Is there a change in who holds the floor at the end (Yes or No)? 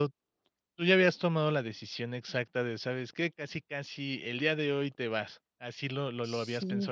Yes